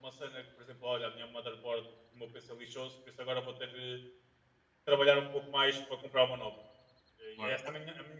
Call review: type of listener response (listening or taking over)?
listening